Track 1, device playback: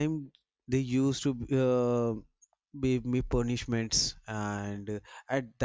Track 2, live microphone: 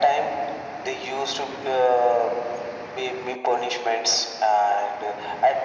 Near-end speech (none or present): none